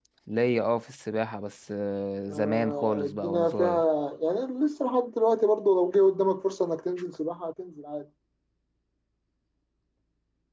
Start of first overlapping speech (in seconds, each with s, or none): 2.3 s